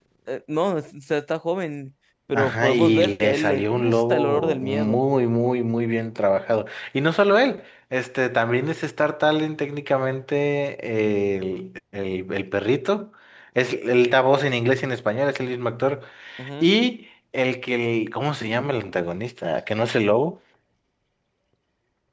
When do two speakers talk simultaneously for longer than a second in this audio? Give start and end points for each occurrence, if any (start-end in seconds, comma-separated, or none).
2.3-5.0